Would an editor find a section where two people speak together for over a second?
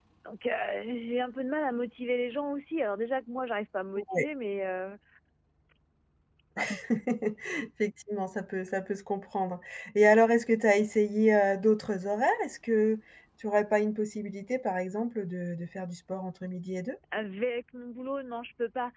No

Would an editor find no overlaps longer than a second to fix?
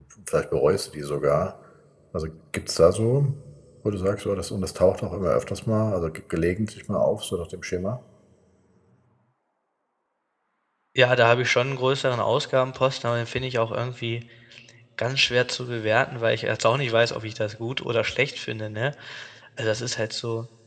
Yes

